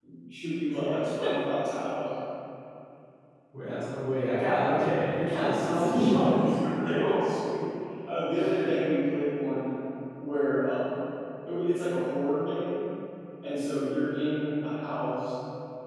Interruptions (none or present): present